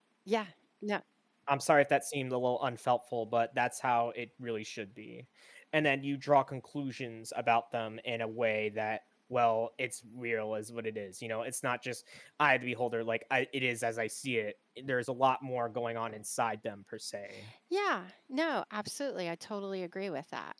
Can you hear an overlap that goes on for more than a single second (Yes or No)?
No